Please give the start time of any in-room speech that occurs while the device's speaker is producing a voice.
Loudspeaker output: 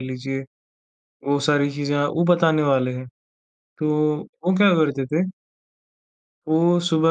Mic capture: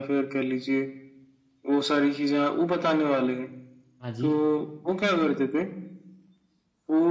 4.0 s

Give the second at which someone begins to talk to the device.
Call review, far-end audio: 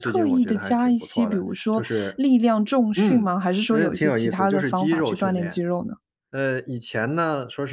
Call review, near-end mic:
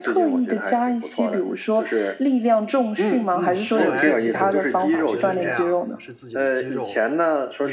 3.3 s

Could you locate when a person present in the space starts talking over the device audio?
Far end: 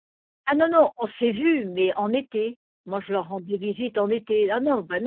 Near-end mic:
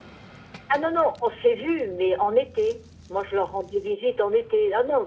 none

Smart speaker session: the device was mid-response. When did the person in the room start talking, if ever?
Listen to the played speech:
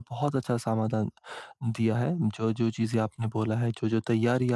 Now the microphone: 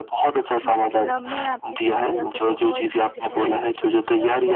0.7 s

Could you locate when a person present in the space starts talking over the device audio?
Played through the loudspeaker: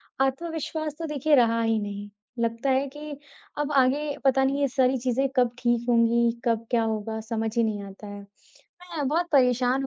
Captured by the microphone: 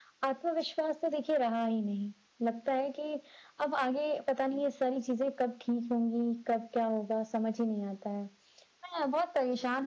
none

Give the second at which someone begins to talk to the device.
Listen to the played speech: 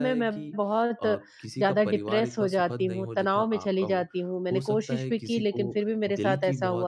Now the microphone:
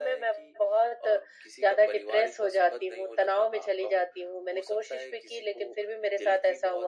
none

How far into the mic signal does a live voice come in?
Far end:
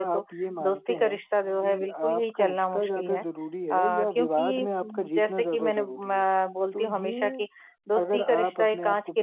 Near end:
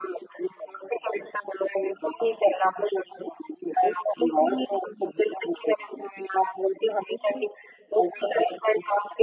none

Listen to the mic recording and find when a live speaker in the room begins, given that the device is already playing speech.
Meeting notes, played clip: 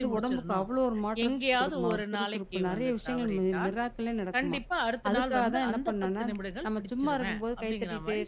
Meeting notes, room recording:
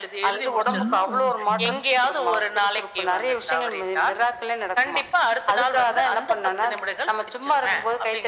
0.7 s

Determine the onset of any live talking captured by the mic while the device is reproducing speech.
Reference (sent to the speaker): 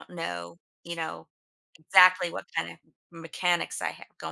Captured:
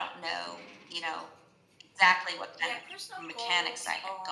2.6 s

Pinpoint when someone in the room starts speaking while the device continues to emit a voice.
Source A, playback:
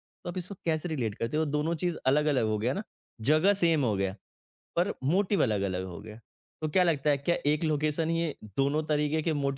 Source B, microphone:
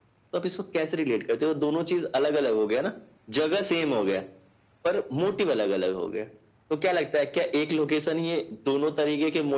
none

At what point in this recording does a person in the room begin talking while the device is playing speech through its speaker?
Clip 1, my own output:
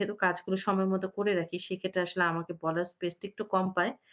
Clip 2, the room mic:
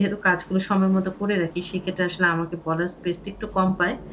none

